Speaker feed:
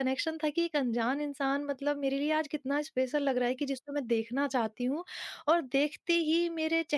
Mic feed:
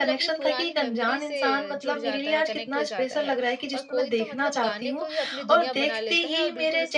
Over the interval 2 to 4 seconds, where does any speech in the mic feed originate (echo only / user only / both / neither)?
both